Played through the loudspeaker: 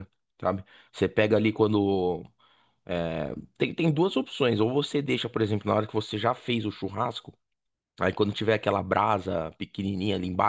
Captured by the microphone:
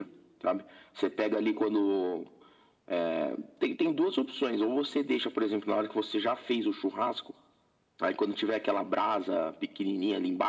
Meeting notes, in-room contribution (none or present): none